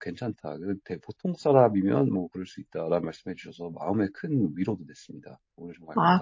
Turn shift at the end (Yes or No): Yes